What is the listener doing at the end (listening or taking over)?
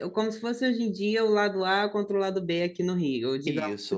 taking over